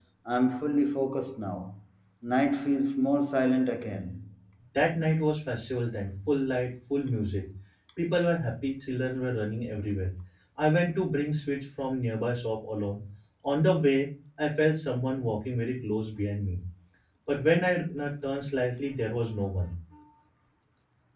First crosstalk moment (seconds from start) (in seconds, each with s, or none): none